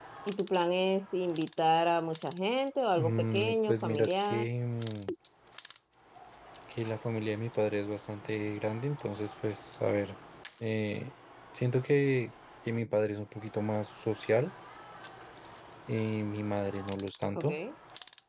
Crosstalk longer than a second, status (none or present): present